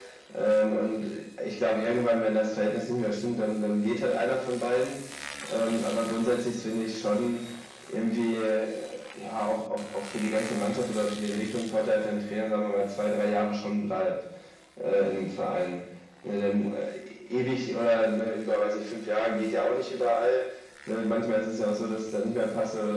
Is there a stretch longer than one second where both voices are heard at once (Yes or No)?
No